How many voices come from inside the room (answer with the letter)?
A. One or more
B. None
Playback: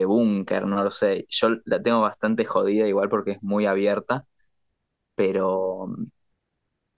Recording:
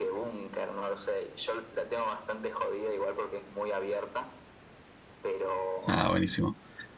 A